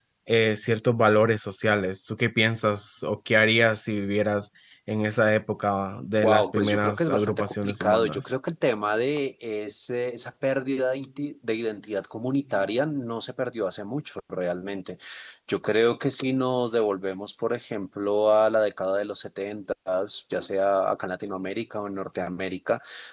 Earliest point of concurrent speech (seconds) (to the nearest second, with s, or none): 6 s